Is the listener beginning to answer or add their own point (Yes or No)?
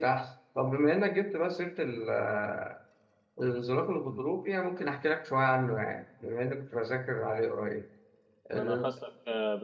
Yes